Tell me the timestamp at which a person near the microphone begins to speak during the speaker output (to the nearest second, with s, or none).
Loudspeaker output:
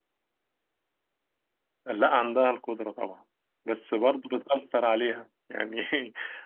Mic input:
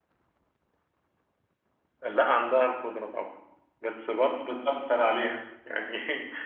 none